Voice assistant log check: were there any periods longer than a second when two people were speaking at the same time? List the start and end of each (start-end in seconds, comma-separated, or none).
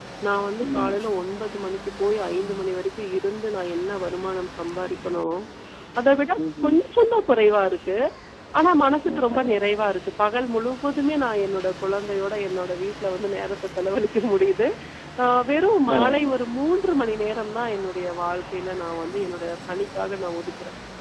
none